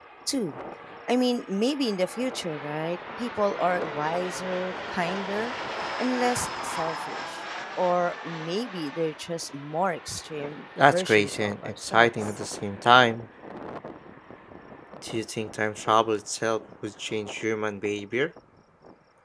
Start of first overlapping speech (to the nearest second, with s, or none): 11 s